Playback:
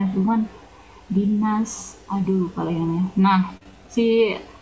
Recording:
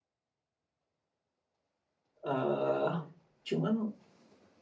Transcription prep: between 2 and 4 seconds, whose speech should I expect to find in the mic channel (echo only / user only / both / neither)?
user only